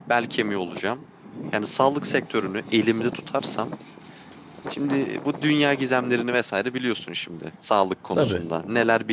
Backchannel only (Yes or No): Yes